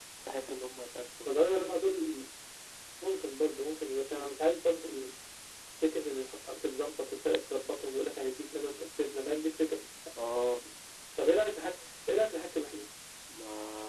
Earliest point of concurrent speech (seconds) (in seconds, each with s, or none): none